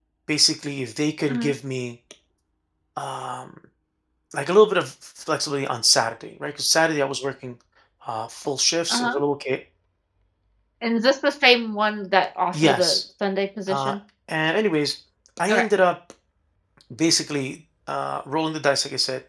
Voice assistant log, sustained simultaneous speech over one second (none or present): none